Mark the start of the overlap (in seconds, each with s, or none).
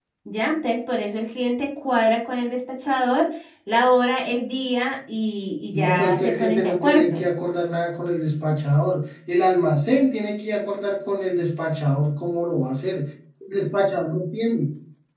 5.7 s